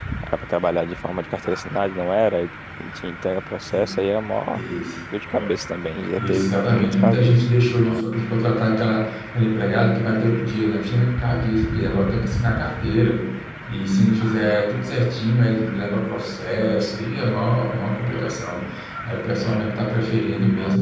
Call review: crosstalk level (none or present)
present